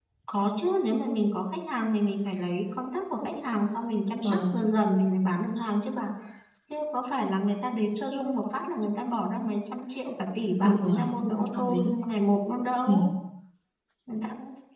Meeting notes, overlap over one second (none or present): present